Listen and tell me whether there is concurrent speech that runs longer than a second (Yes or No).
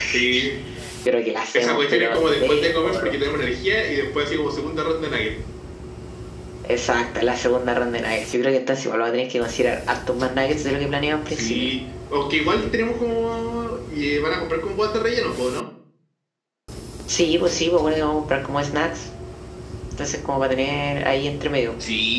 Yes